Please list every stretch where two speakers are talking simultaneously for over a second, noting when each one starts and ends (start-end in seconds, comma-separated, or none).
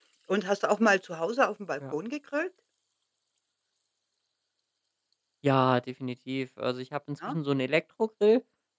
none